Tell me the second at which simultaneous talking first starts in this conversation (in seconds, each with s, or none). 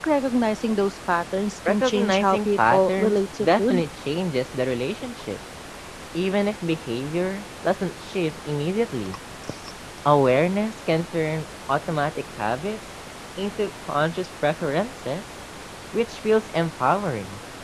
1.6 s